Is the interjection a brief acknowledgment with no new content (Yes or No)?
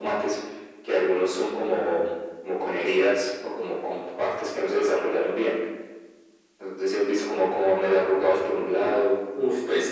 No